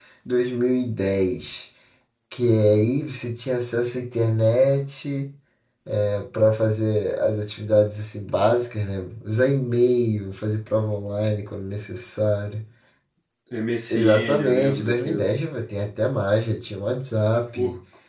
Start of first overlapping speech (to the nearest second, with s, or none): 14 s